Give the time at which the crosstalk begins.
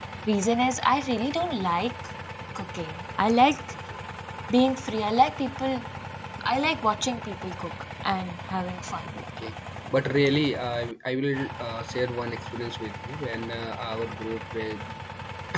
none

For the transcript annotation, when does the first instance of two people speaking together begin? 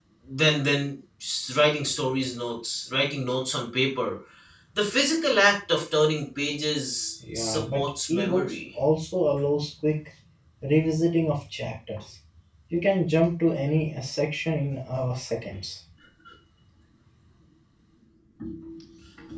7.2 s

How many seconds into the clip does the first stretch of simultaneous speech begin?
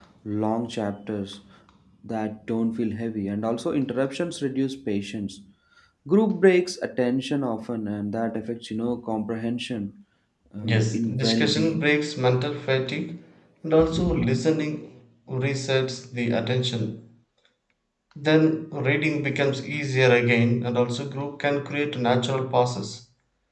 10.6 s

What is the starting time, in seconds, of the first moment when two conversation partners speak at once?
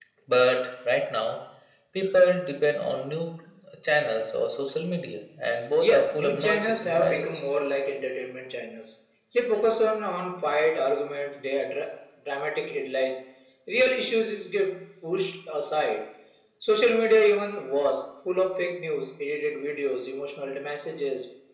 5.8 s

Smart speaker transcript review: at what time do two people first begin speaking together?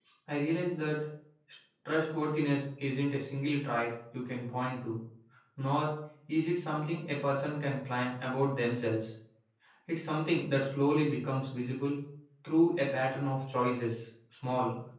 none

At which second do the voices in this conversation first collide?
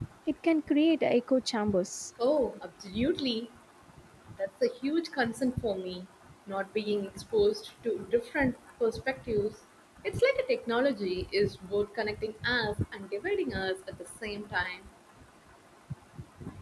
none

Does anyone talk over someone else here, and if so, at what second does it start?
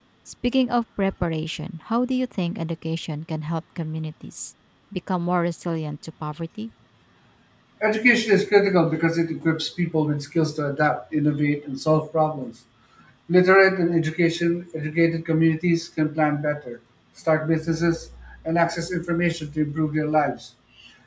none

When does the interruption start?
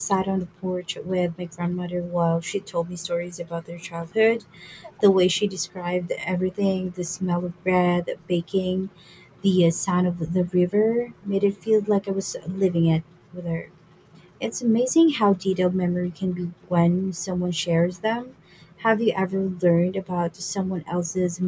none

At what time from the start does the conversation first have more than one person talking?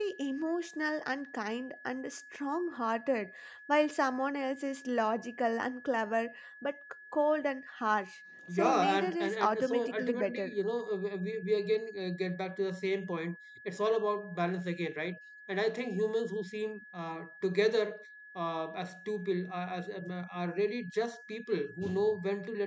8.5 s

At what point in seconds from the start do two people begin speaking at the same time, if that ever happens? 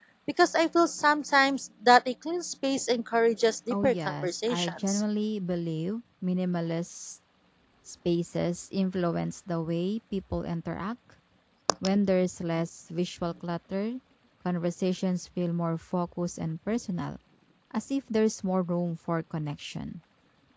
3.7 s

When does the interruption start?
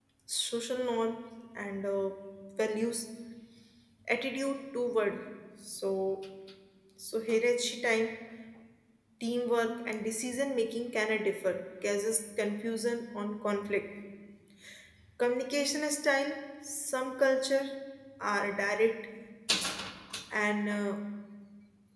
none

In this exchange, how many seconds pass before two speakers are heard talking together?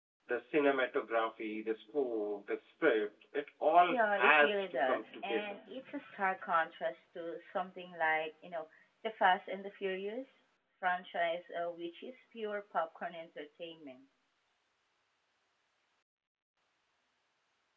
3.9 s

